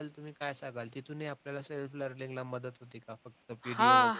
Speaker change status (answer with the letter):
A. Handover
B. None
A